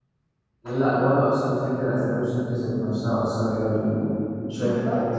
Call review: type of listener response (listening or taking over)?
taking over